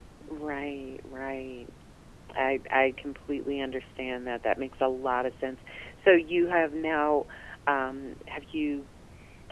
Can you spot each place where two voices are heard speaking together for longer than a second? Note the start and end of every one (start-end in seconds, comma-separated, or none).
none